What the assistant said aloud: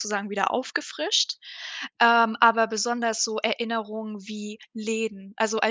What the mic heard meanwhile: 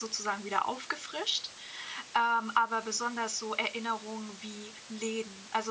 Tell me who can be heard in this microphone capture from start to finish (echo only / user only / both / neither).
echo only